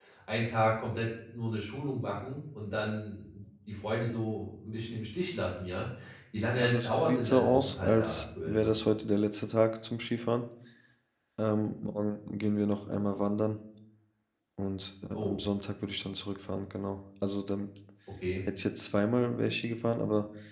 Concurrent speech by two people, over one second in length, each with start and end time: 6.6-8.7

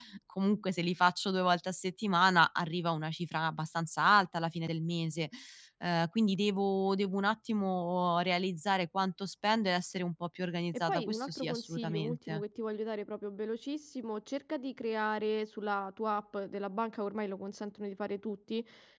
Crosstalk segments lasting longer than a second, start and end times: 10.9-12.4

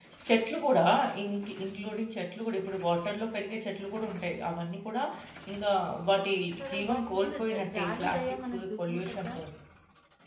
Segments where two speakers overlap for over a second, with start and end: 6.7-9.4

